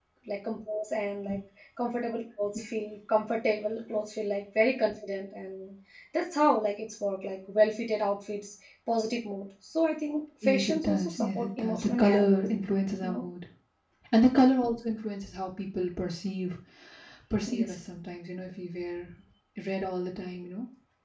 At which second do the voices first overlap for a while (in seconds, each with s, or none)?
10.4 s